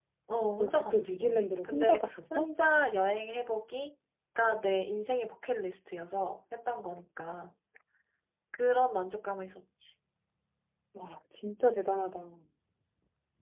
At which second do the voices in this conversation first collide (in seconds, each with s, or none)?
0.6 s